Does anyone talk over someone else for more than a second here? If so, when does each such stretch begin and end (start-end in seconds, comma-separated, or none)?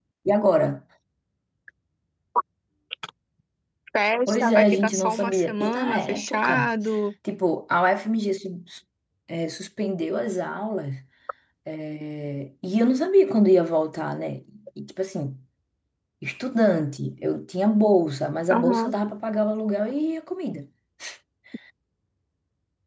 4.3-6.7